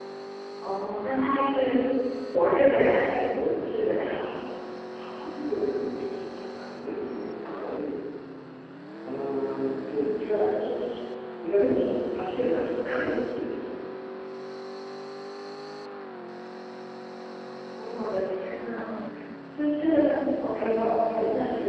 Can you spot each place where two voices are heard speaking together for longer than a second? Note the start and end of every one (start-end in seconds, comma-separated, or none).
2.9-4.1